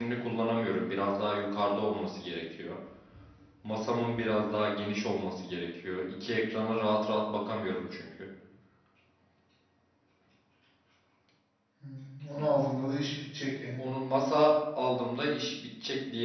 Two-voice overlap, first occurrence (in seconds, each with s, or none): none